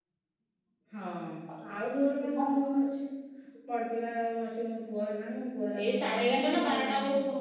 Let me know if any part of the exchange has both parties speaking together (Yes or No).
Yes